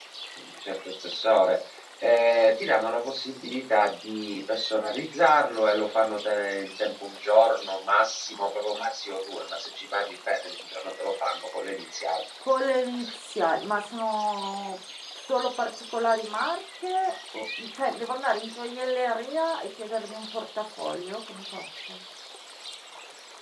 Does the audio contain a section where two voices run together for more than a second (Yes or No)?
No